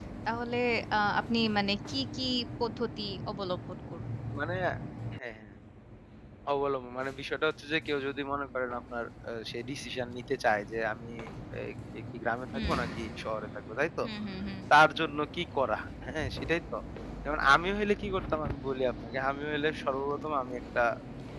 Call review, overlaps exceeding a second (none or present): none